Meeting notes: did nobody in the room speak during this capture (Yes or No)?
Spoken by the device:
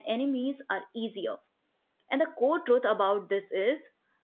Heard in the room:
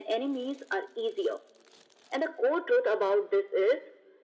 Yes